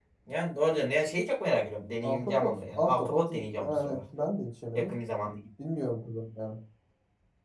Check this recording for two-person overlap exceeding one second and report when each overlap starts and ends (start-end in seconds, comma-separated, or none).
2.0-4.0